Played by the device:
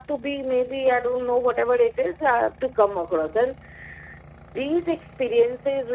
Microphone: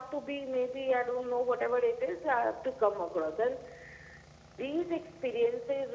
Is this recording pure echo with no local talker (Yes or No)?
Yes